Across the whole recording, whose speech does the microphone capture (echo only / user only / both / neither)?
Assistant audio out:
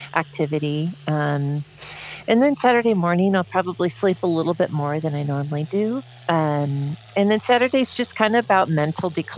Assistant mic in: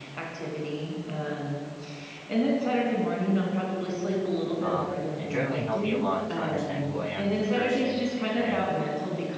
both